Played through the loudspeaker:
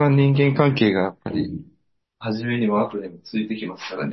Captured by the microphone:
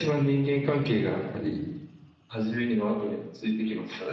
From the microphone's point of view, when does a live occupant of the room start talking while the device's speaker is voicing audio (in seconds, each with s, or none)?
none